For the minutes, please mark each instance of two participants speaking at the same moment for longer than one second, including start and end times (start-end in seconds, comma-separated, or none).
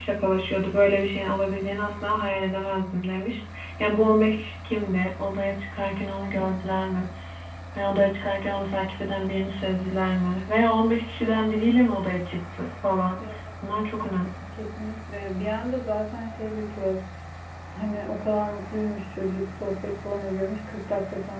none